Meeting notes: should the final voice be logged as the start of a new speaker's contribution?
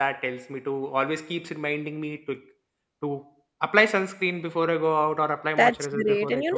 Yes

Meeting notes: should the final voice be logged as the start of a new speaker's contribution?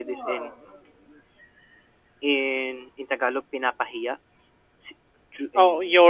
Yes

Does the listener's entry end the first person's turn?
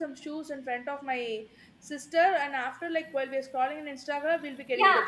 Yes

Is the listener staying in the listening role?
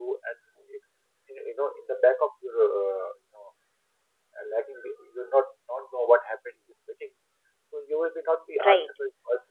Yes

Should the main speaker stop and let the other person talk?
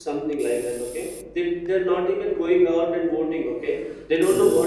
No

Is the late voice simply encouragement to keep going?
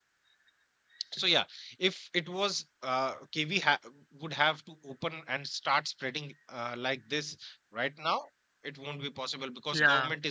Yes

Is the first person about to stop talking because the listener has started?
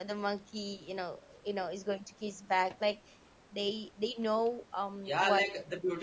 Yes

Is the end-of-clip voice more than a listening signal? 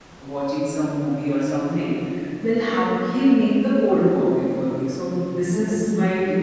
No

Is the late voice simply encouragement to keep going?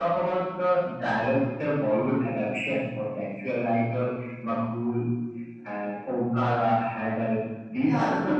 Yes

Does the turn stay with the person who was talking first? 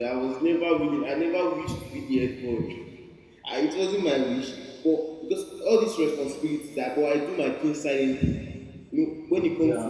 Yes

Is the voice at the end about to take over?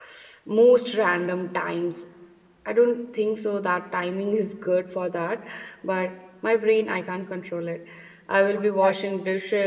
No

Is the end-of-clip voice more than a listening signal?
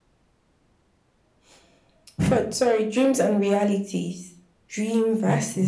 No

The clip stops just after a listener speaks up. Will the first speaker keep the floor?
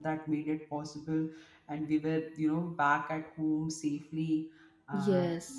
Yes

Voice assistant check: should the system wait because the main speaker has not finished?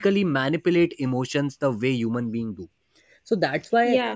Yes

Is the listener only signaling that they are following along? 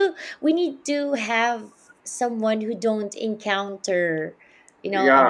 No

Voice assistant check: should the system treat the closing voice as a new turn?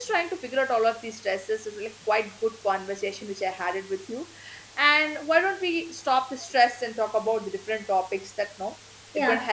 Yes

